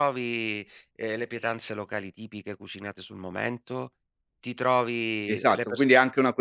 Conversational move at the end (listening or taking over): taking over